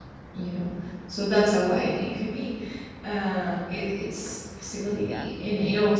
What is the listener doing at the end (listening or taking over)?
listening